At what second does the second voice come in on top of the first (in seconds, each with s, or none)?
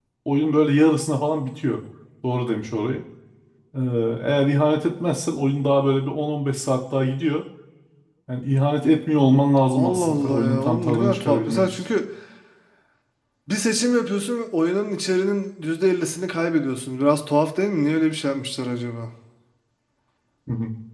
9.7 s